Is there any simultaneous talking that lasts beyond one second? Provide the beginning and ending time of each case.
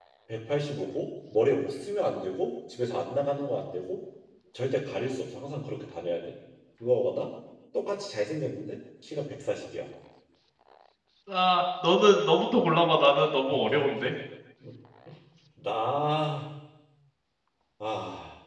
none

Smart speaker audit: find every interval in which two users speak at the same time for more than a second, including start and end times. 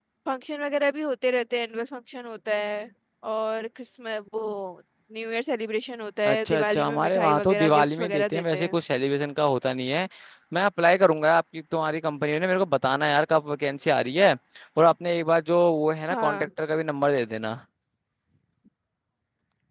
6.2-8.8

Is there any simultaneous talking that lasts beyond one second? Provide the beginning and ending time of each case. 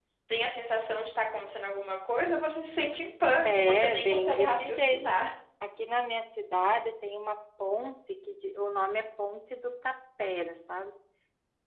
3.4-5.0

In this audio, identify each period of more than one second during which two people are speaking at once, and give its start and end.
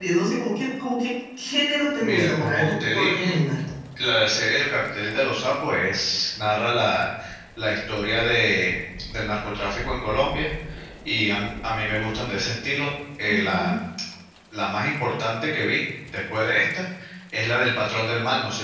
2.0-3.3

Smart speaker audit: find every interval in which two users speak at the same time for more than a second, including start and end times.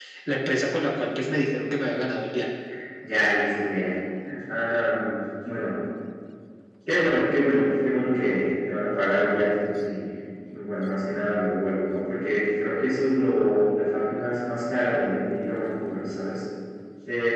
none

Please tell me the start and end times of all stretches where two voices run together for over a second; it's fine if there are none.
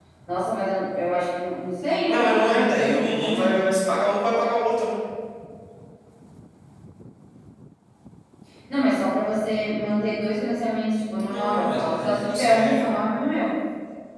2.1-3.6, 11.3-12.9

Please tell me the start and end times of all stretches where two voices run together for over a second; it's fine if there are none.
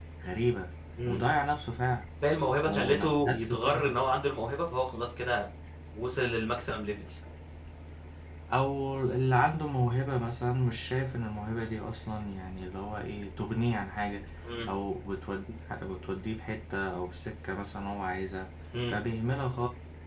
2.6-4.0

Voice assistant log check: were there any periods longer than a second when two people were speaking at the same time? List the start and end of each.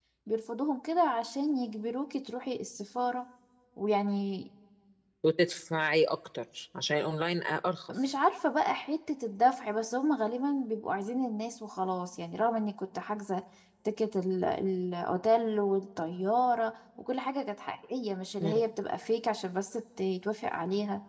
none

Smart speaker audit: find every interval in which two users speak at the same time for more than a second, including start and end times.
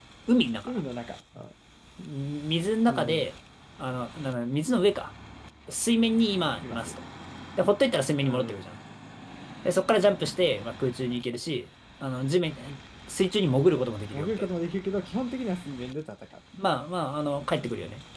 none

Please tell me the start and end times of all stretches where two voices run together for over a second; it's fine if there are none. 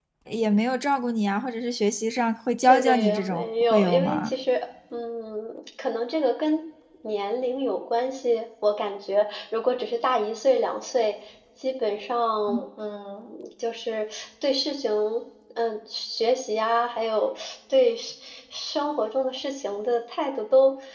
2.6-4.3

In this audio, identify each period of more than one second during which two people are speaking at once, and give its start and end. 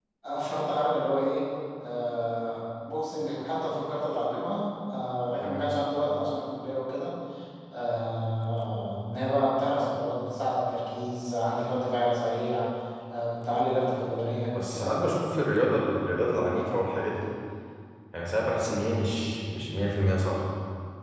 none

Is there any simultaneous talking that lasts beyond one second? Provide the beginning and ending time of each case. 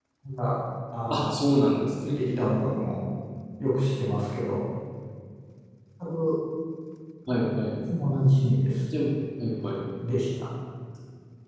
none

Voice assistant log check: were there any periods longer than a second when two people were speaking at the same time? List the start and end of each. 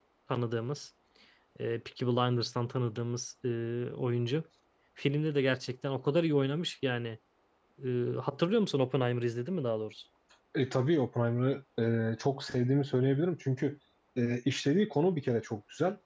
none

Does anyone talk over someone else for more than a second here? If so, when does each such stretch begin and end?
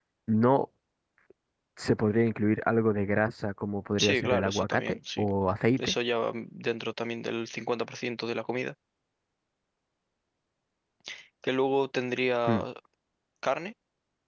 4.0-5.3

